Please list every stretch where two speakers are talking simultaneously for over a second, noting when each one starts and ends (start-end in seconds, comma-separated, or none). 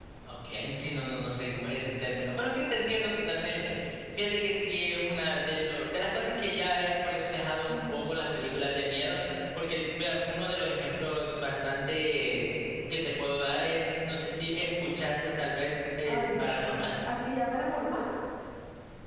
none